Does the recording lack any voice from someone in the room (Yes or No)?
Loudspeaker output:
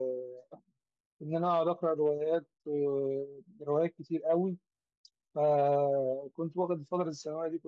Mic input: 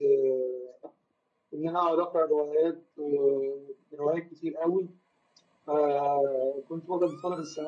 Yes